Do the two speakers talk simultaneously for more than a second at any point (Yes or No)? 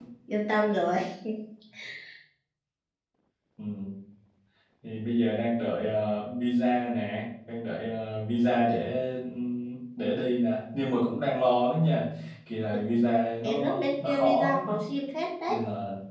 Yes